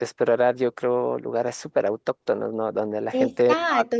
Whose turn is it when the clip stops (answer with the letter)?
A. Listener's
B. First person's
A